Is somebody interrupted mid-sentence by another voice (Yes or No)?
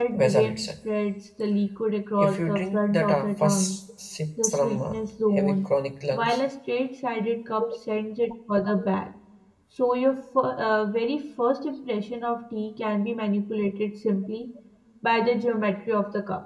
Yes